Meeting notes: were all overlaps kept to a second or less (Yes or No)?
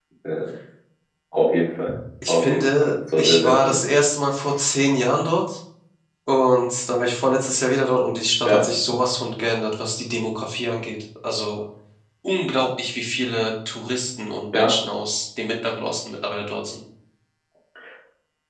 No